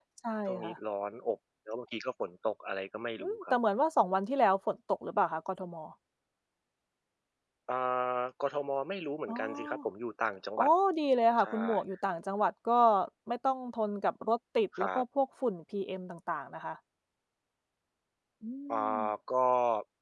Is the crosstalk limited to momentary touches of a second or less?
Yes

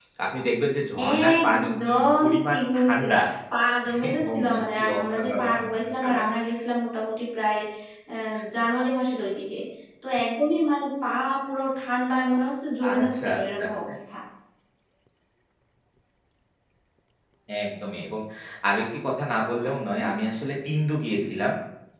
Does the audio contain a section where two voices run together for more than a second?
Yes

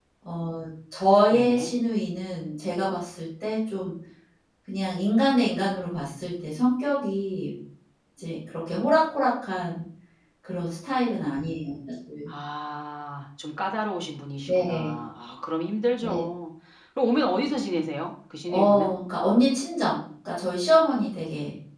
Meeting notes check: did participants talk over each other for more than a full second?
No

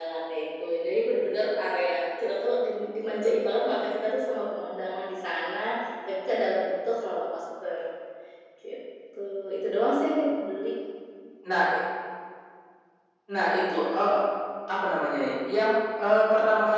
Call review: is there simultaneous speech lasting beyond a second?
No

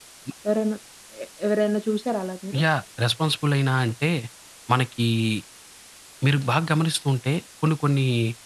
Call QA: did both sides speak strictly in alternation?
Yes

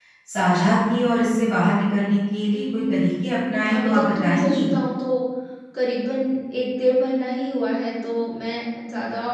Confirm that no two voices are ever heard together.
No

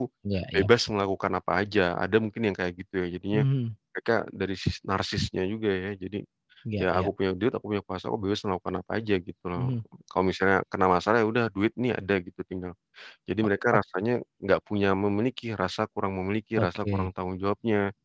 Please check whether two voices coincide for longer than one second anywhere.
No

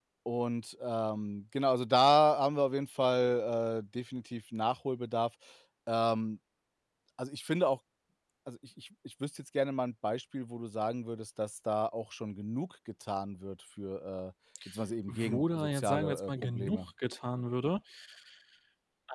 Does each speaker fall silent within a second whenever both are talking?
No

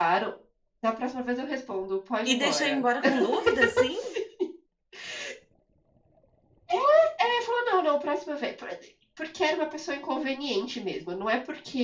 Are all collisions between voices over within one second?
Yes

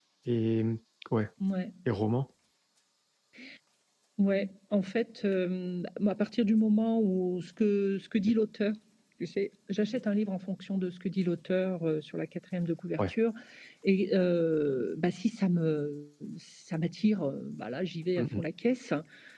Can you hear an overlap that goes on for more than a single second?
No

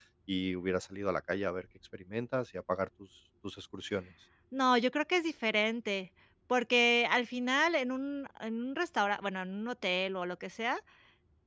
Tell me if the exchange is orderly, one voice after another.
Yes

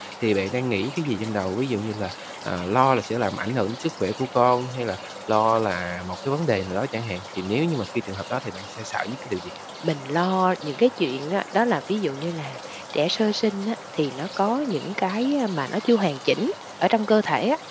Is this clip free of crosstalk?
Yes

